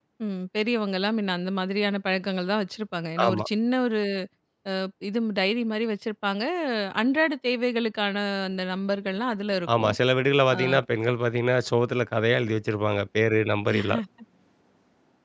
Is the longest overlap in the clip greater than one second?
No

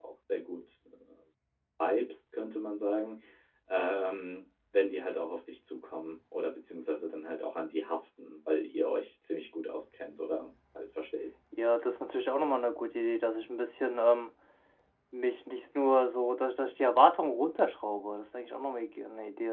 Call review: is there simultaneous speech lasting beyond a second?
No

